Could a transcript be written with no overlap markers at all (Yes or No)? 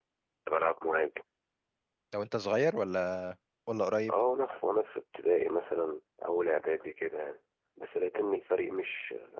Yes